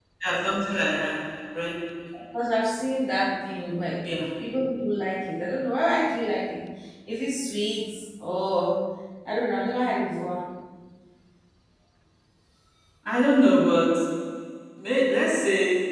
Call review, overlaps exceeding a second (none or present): none